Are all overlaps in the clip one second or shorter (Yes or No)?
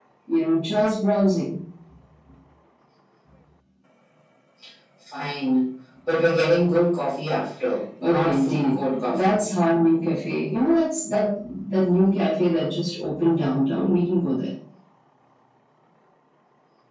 No